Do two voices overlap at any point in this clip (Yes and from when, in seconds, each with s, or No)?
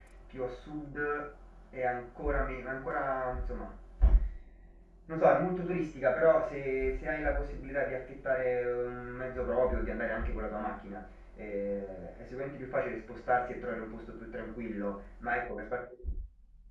No